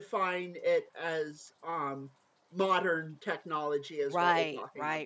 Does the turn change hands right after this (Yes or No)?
Yes